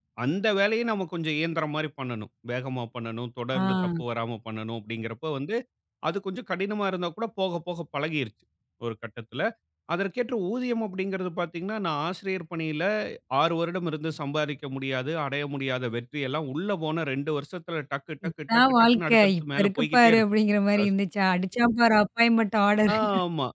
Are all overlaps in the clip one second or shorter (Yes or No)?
No